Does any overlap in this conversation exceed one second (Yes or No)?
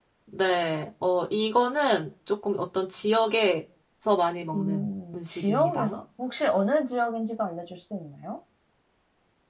Yes